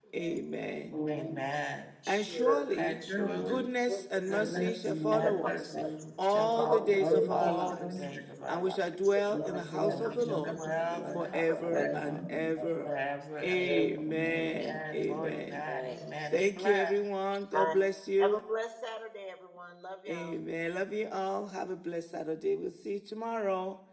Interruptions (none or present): present